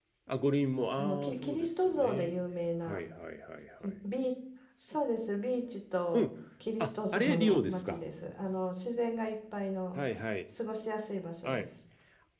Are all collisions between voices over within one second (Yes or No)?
No